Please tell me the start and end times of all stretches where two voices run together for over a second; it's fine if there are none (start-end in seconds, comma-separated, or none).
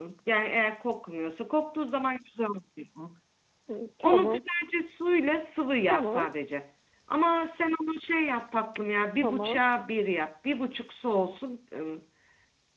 none